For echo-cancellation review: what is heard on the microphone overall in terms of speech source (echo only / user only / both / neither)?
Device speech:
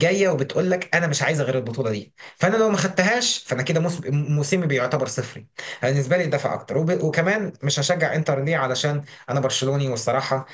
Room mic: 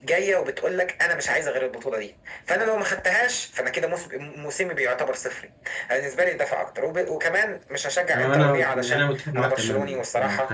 both